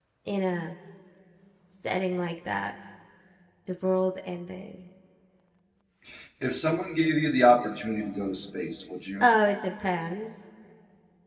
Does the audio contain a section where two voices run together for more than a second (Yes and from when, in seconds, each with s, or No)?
No